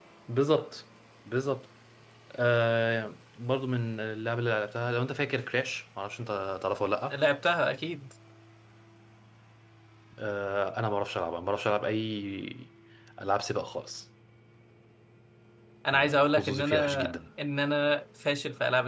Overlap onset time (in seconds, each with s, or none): 15.9 s